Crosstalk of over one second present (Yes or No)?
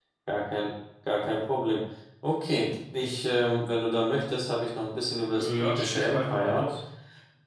Yes